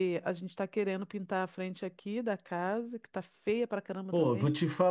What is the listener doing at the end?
taking over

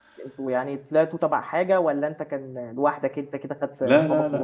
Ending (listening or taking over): taking over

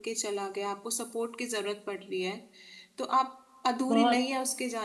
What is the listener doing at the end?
listening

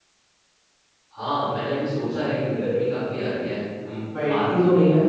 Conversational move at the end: listening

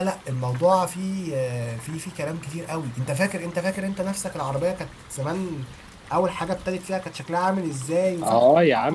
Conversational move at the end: taking over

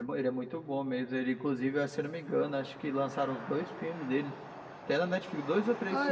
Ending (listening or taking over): taking over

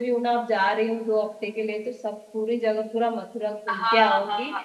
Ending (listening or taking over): taking over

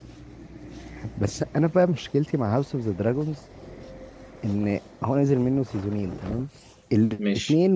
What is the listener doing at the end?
listening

